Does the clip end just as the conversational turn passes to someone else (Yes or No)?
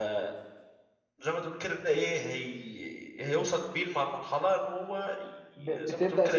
Yes